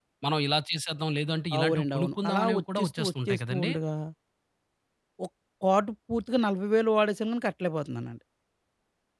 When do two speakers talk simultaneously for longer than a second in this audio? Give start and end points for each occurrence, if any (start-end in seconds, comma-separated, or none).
1.6-3.7